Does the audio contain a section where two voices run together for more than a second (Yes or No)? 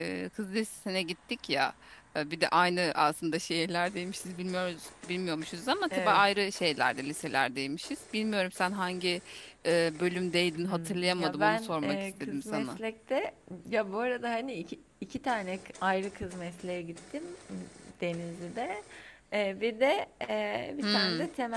Yes